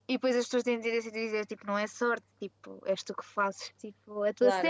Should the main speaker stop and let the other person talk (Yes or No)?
Yes